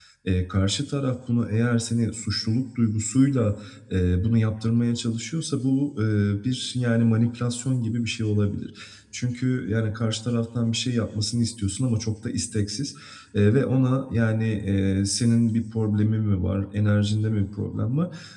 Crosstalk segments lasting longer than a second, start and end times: none

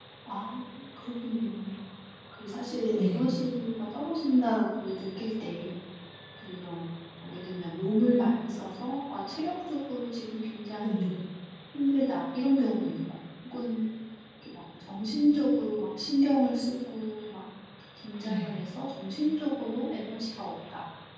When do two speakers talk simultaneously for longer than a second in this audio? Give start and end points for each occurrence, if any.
none

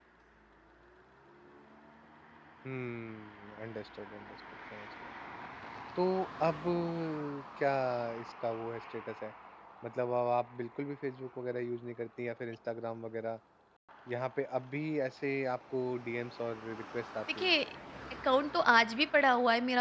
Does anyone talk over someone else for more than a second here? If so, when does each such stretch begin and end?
none

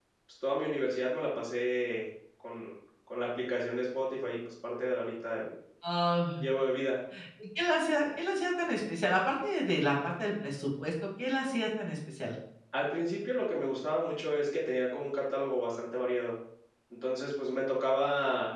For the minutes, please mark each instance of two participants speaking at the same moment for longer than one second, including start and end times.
none

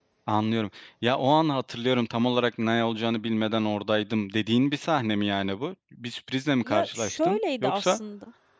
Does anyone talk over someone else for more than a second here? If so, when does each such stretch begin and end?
6.6-8.0

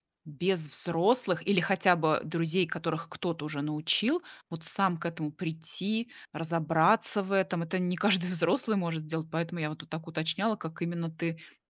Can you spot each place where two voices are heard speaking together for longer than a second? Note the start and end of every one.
none

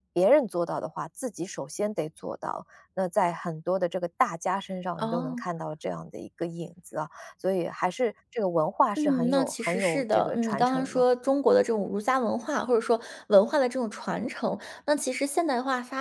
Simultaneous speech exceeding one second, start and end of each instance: 9.0-11.0

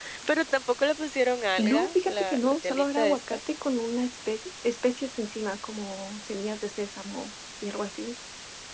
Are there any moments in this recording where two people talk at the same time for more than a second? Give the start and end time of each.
1.6-3.4

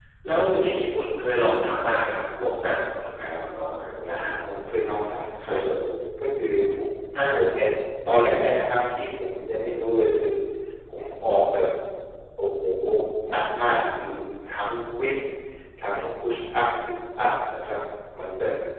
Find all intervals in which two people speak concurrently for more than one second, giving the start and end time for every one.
none

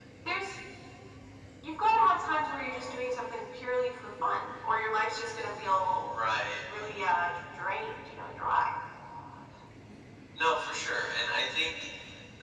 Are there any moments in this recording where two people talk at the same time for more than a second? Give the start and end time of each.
none

